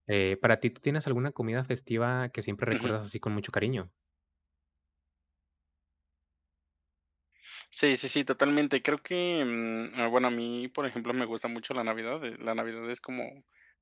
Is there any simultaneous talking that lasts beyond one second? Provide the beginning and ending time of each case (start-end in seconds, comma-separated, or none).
none